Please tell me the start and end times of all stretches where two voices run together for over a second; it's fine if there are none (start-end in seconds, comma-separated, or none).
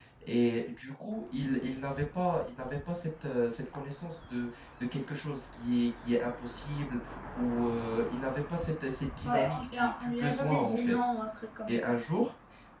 9.2-11.0